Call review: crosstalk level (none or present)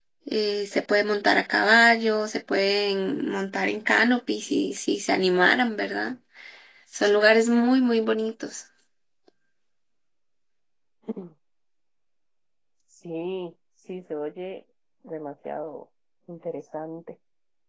none